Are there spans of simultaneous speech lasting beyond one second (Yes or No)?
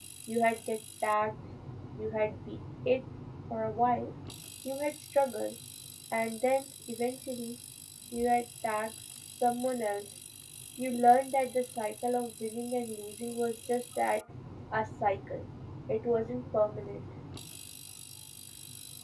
No